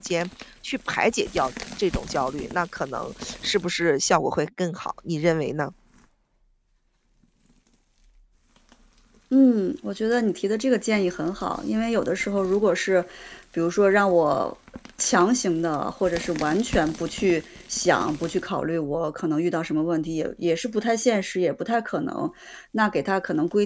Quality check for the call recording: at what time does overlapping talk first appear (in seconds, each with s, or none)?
none